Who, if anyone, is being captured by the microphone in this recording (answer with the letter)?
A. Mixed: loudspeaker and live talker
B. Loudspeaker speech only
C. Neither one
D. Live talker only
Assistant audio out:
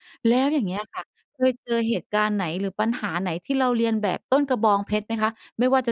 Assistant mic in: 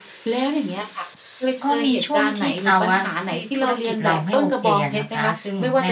A